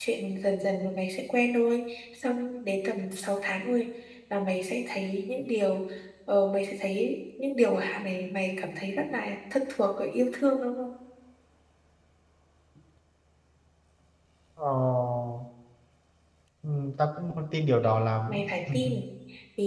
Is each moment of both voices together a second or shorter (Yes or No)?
Yes